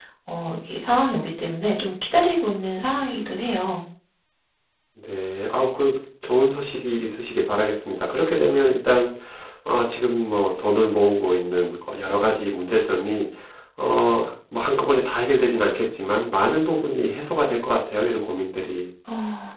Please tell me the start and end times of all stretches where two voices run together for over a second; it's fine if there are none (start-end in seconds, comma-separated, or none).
none